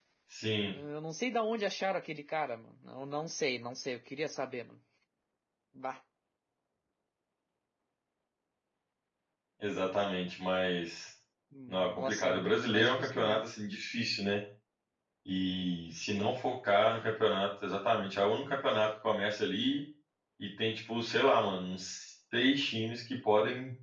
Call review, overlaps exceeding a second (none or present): present